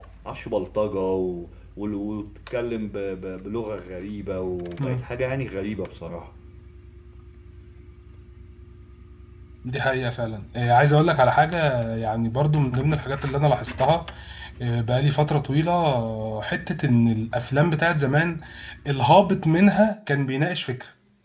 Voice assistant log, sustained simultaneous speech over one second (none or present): none